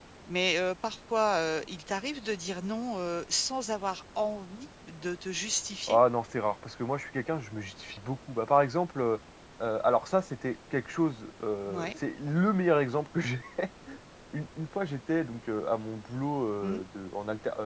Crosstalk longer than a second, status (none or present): none